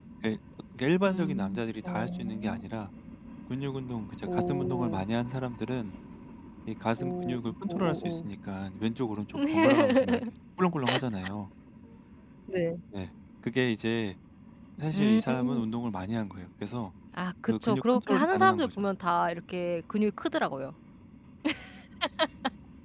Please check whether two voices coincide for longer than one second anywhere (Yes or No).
Yes